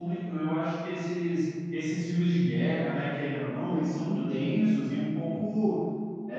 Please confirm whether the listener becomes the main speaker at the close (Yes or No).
No